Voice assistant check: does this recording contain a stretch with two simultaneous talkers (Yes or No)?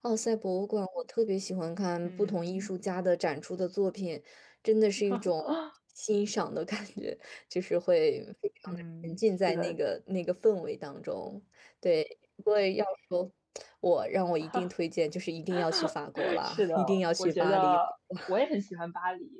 Yes